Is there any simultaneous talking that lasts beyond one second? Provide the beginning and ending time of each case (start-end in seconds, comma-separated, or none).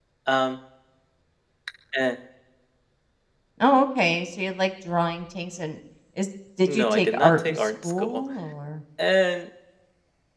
6.7-8.2